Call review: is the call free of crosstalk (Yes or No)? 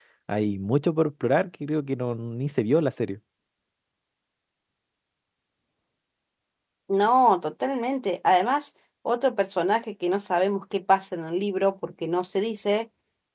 Yes